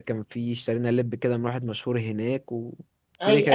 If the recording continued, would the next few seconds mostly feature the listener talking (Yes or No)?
Yes